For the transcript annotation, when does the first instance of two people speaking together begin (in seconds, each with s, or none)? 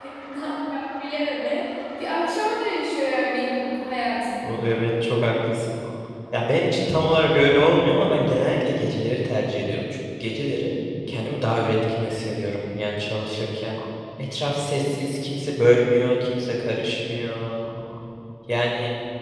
none